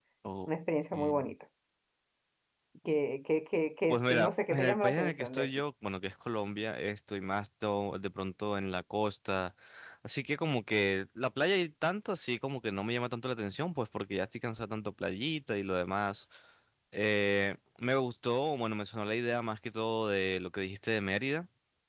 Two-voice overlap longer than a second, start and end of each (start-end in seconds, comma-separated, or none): 3.9-5.5